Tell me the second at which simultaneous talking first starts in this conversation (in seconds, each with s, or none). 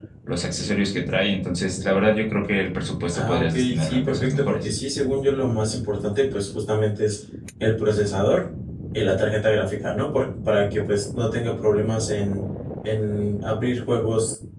3.1 s